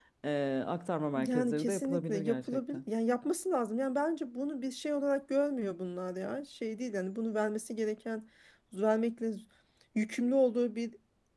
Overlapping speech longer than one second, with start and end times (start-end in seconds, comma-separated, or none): 1.3-2.8